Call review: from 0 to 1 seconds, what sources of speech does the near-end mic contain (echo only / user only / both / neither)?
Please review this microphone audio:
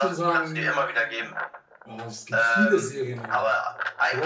both